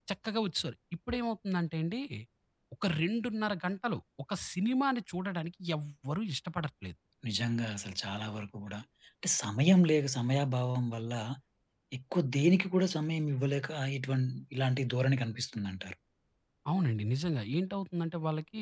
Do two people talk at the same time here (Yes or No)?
No